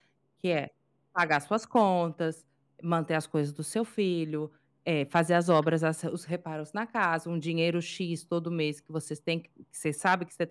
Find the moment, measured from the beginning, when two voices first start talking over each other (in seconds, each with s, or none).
none